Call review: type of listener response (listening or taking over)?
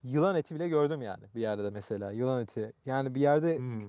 listening